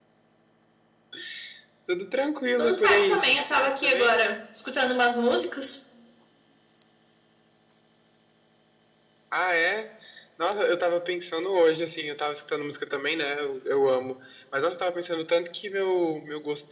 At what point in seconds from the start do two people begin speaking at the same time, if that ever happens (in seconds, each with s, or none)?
2.6 s